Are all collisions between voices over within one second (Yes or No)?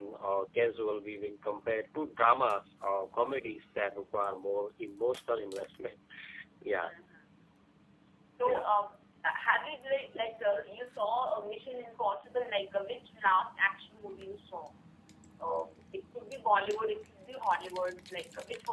Yes